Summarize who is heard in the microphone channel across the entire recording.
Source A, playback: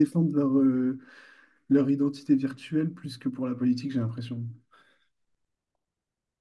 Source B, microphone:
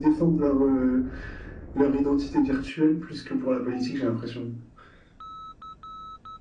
echo only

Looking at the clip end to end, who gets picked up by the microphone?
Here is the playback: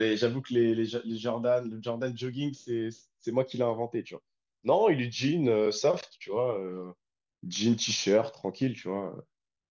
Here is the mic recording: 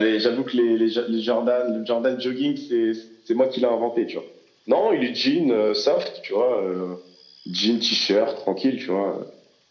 echo only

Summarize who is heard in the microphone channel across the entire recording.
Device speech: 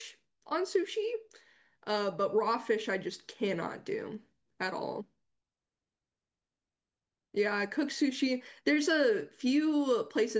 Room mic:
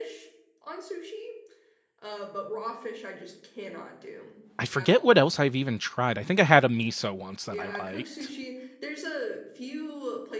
both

